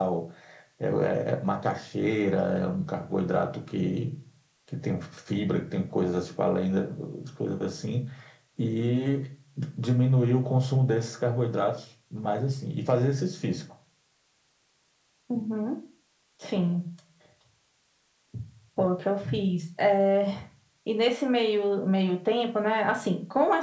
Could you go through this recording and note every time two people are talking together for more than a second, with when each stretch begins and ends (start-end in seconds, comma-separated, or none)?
none